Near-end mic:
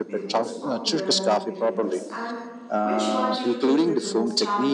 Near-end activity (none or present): present